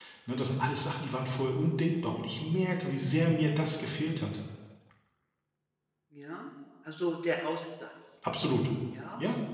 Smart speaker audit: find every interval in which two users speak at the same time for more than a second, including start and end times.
none

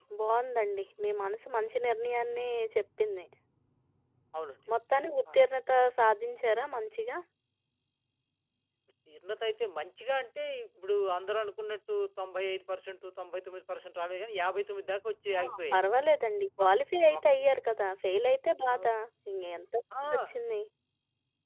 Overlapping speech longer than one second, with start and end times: none

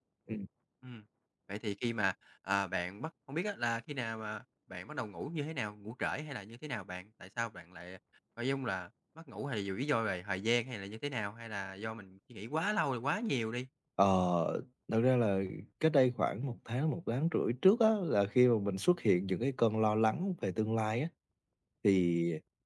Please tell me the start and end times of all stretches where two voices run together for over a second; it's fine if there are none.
none

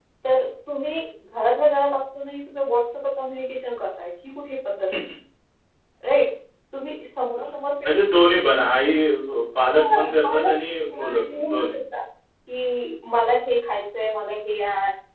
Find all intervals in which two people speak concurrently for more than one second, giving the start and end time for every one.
9.6-11.8

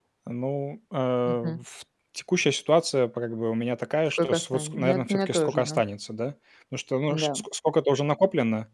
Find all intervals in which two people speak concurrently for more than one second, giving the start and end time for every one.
4.2-5.8

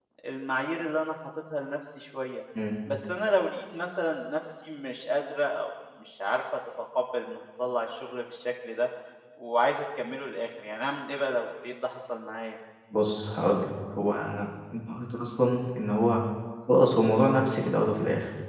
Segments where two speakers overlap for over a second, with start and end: none

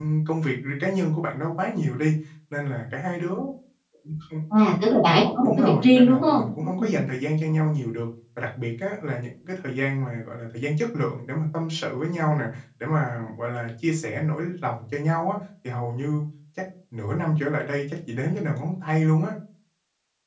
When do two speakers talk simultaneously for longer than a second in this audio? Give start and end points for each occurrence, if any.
5.4-7.0

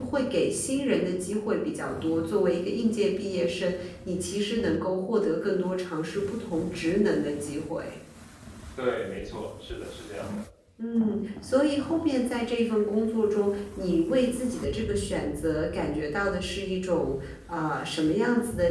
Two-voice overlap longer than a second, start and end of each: none

